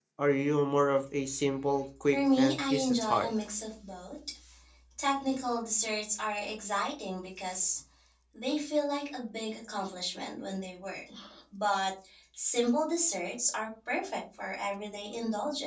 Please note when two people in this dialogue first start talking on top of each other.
2 s

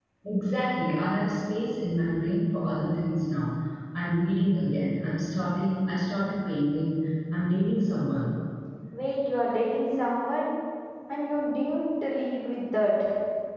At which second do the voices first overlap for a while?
none

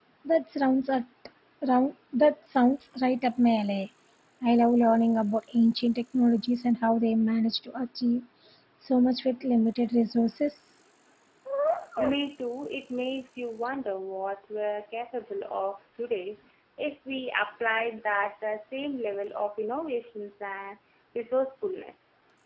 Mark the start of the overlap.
none

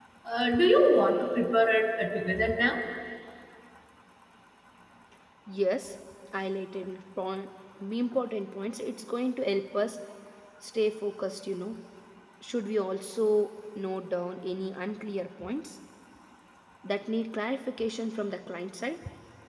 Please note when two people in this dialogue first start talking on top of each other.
none

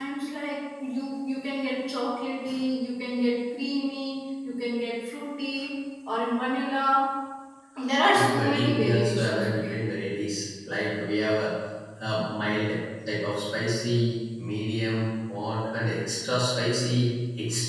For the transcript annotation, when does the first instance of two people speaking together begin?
8 s

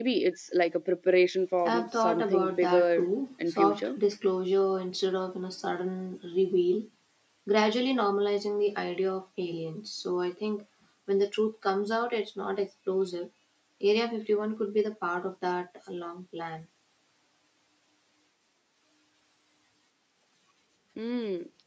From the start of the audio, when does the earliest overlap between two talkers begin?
2 s

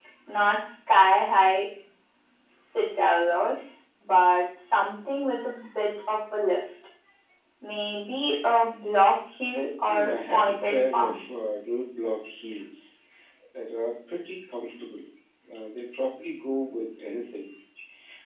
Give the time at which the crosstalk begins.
10 s

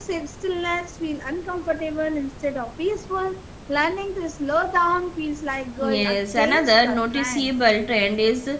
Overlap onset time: 6 s

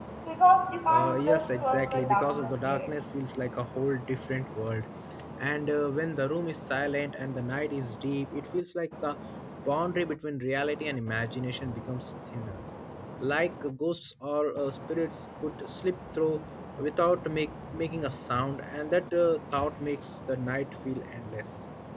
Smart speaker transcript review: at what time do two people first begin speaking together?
1 s

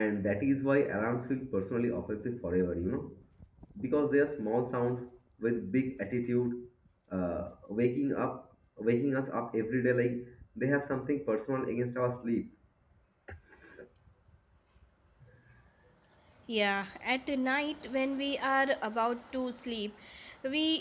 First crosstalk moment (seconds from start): none

